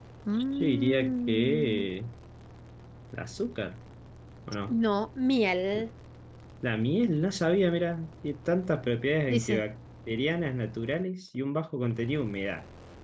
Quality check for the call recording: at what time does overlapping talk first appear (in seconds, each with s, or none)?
0.6 s